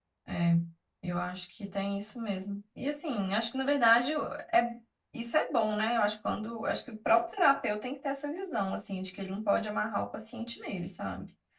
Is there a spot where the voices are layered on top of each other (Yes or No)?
No